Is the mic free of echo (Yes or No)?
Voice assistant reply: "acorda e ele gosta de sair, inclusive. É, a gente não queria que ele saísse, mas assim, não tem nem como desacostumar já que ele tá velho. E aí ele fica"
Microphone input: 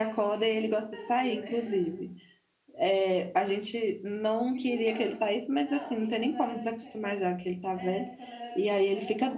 No